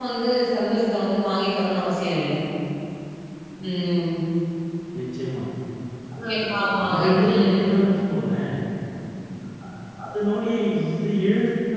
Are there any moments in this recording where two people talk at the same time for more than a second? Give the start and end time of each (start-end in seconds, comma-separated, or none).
6.3-7.7